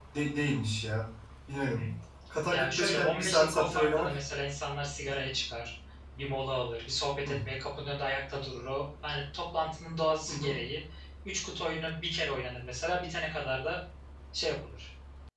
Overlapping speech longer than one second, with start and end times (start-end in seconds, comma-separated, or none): 2.5-4.1